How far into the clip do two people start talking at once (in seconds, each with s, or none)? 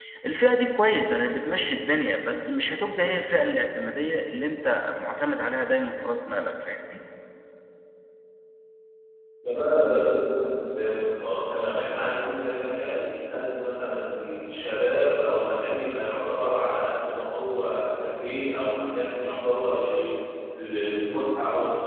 none